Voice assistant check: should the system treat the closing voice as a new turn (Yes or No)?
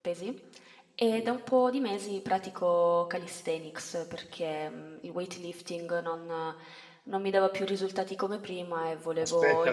Yes